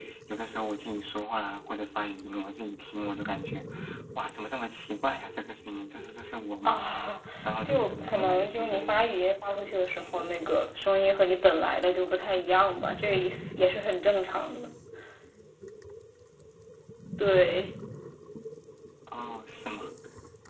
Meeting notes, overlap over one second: present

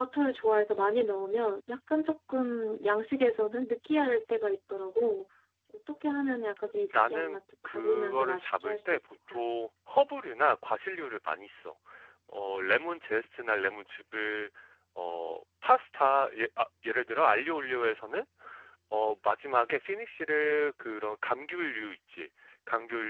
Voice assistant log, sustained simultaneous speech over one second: present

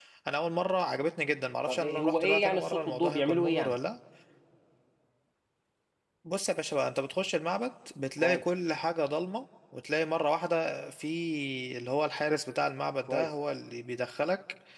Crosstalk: present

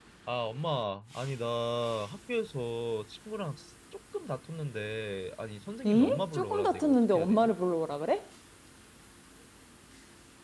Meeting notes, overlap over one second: present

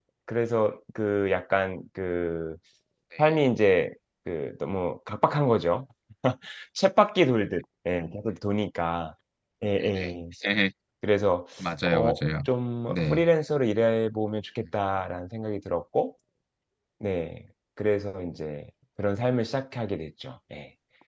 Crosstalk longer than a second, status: none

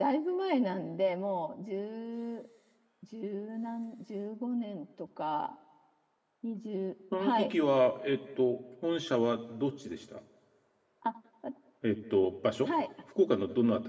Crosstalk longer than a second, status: none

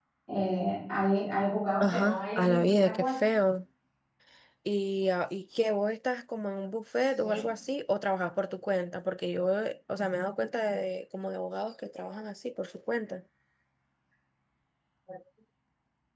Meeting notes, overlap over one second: present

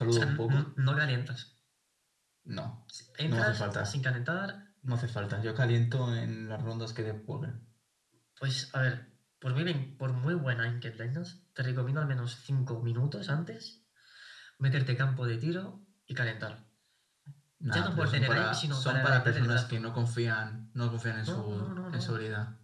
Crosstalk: present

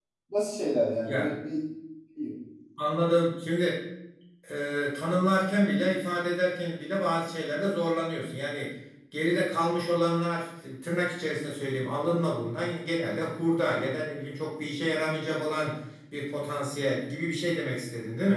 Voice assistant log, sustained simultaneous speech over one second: none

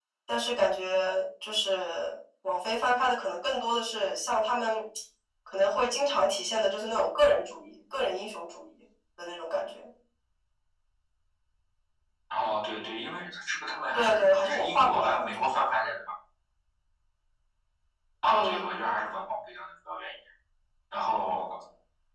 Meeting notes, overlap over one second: present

